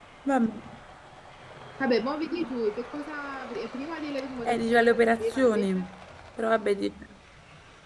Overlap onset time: 4 s

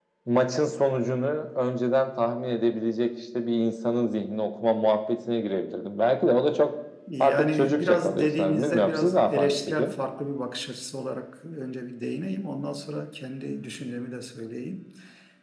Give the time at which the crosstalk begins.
7 s

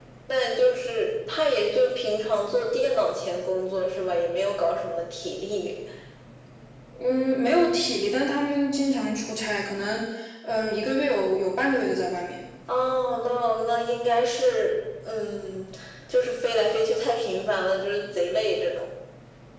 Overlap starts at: none

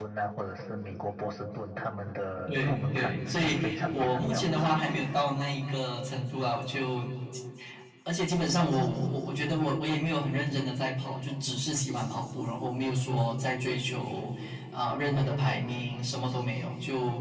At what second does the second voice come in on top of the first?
2 s

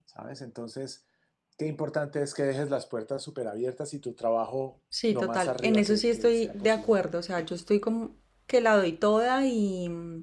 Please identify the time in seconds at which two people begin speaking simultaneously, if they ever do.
5 s

